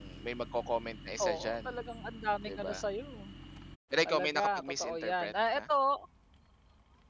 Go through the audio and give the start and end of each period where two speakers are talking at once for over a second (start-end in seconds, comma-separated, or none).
4.1-5.6